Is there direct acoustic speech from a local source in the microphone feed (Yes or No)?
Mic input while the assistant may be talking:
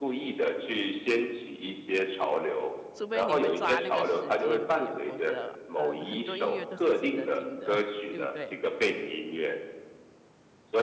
Yes